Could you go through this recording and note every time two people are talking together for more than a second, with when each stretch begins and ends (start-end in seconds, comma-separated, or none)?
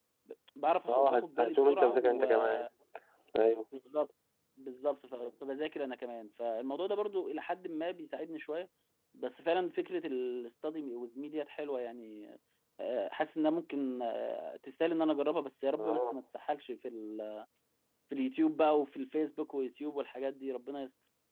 0.9-2.6